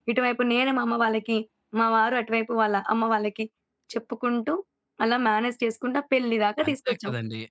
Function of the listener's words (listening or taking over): taking over